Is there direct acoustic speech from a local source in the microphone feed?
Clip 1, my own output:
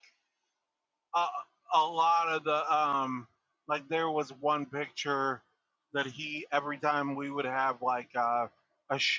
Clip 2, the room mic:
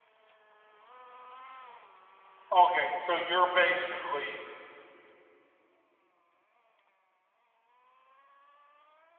Yes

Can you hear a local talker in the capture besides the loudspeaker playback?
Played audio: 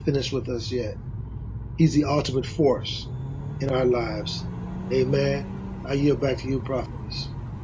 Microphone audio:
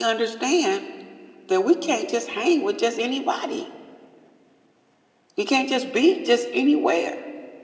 Yes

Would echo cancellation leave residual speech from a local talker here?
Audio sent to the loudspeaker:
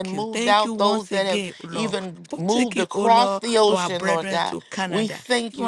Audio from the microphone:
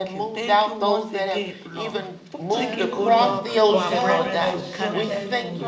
Yes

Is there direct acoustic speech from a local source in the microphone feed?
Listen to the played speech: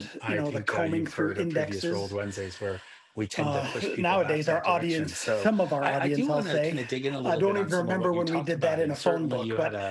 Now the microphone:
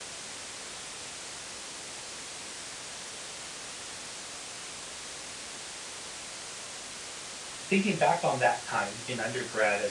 Yes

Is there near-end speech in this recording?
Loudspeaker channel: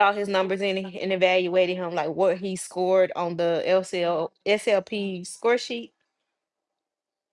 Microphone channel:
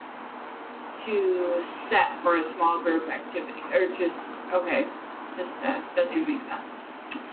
Yes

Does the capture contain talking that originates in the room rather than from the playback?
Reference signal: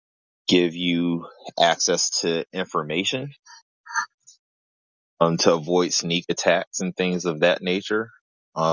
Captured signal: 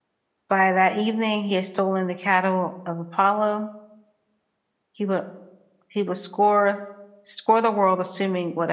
Yes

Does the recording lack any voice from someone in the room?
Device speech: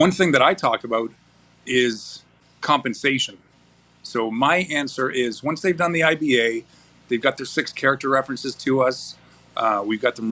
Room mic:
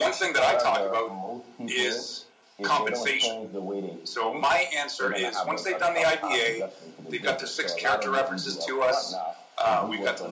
No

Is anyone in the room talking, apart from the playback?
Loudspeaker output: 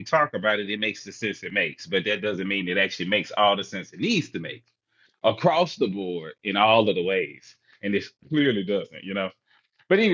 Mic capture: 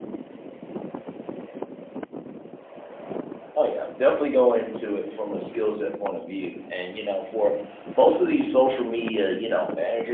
Yes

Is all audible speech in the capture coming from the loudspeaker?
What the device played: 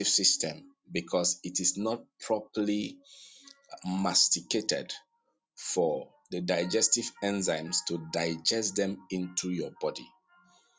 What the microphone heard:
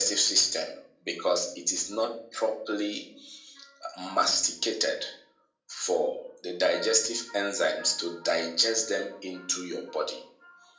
Yes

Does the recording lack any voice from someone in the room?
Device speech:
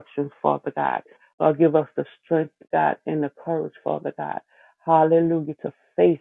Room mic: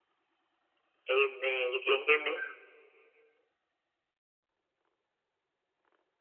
No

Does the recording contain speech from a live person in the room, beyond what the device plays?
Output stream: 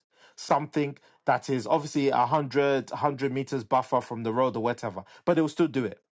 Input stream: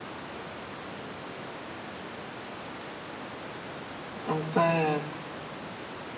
Yes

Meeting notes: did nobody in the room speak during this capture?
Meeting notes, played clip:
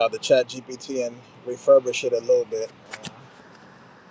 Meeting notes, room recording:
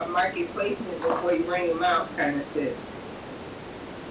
No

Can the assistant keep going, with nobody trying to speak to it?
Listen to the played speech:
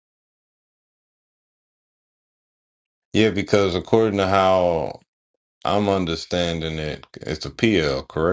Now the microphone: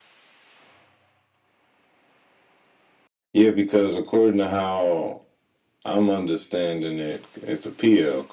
Yes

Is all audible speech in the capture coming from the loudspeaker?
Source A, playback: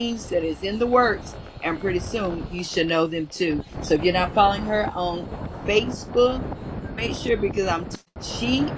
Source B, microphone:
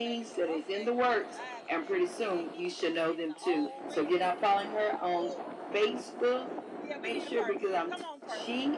No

